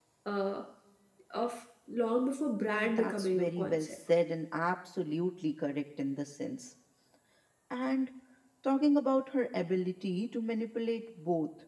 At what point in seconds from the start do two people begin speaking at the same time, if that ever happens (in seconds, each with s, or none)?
2.6 s